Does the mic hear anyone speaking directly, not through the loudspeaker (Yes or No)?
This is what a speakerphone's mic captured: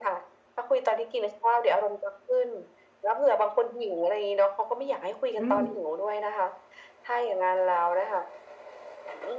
Yes